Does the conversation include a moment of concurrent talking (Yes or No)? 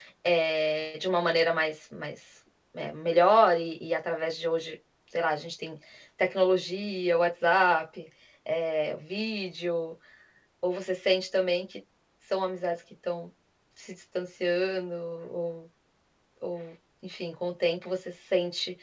No